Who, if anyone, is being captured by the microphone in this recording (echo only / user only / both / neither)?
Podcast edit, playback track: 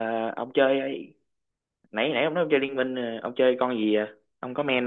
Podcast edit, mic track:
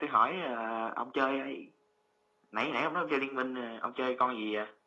echo only